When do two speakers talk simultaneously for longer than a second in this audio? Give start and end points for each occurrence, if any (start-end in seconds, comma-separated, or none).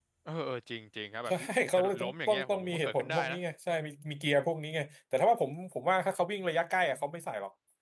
1.8-3.4